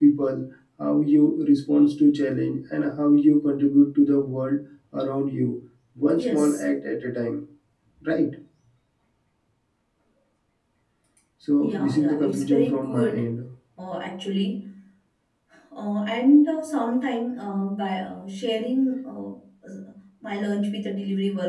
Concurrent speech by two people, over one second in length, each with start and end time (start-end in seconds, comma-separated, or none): 11.6-13.3